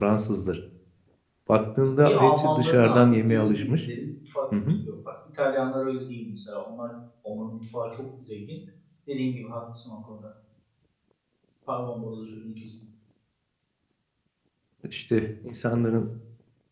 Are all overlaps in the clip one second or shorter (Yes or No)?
No